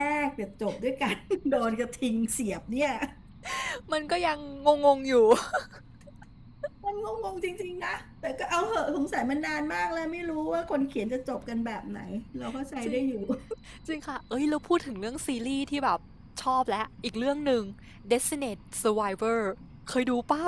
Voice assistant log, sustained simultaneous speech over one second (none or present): none